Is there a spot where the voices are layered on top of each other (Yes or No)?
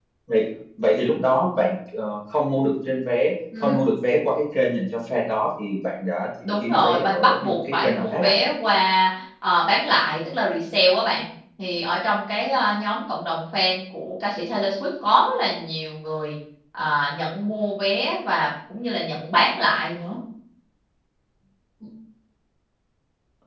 Yes